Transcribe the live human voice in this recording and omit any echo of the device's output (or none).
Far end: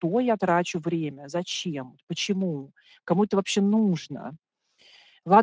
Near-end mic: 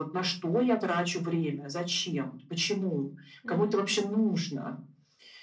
Мгм.